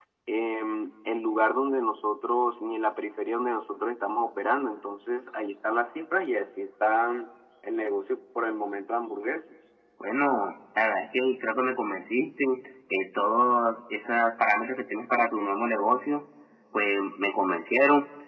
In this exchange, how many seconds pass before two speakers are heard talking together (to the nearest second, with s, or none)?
none